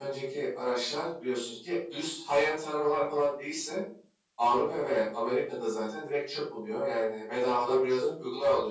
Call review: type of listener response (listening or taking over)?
taking over